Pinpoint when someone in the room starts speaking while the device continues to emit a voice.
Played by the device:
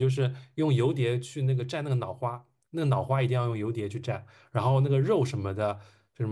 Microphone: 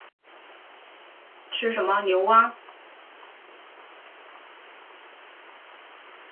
1.5 s

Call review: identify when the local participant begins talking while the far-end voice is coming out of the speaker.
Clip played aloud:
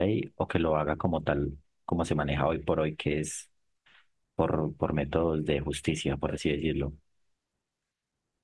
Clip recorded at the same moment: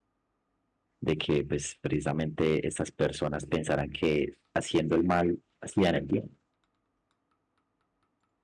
1.0 s

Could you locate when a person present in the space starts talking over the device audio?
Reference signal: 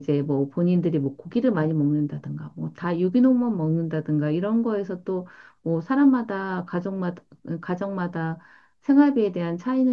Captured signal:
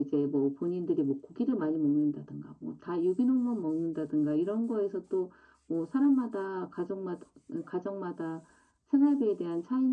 none

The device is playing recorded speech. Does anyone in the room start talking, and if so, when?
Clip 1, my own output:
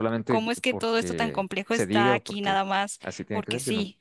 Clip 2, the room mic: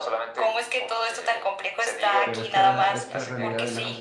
2.2 s

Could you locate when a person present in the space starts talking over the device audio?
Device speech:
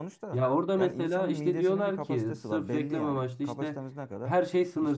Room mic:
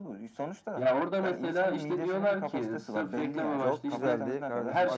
3.6 s

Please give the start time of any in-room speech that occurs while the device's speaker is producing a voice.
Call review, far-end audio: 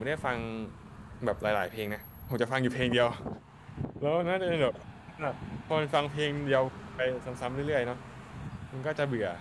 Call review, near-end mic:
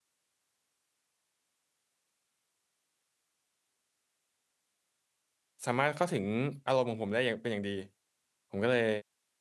5.7 s

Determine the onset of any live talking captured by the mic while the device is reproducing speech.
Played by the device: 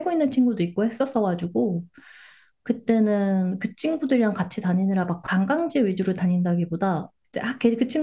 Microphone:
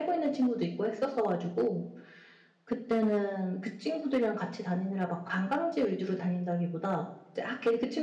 none

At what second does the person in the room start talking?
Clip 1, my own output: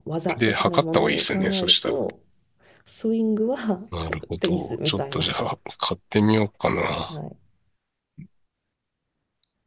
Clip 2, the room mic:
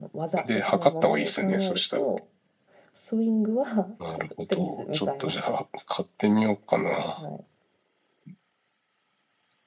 none

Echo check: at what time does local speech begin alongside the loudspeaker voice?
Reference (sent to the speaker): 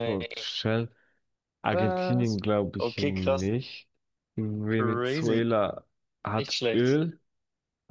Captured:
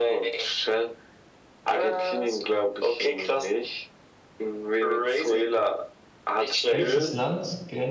6.7 s

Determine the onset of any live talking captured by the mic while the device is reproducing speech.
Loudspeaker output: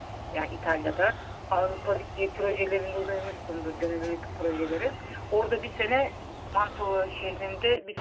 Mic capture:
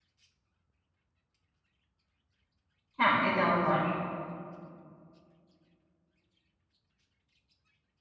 3.0 s

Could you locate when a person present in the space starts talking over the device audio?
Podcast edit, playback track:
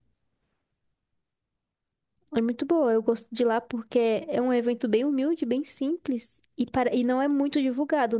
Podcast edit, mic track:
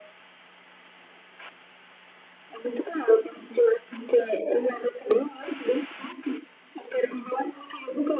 none

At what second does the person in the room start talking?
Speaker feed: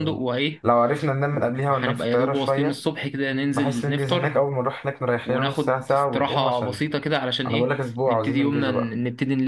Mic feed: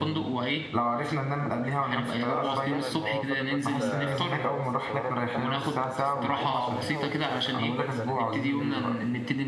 2.2 s

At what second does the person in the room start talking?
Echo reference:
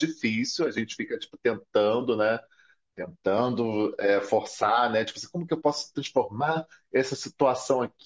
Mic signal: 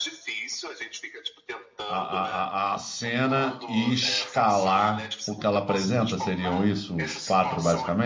1.9 s

